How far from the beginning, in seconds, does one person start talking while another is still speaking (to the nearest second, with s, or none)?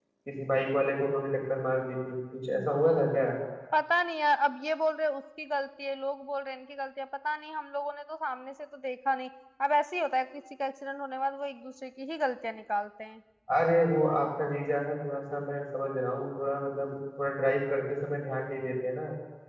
none